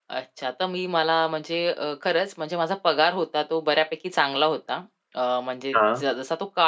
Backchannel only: Yes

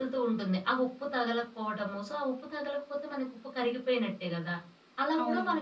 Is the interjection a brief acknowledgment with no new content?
Yes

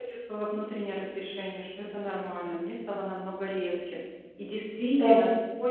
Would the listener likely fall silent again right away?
Yes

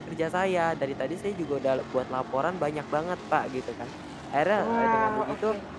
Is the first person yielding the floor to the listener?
No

